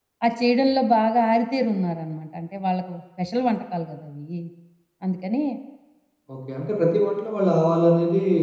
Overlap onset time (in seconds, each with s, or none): none